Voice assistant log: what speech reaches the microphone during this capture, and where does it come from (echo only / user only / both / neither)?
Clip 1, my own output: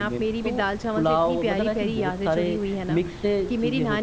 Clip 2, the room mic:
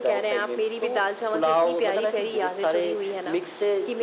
echo only